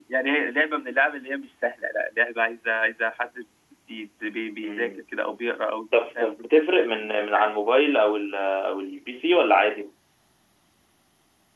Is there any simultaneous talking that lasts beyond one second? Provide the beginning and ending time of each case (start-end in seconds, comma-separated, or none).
none